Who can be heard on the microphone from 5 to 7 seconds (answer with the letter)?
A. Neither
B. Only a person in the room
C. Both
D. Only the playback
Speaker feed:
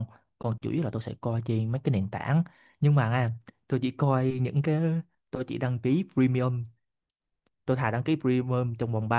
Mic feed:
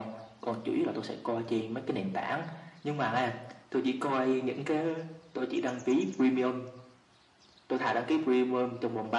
D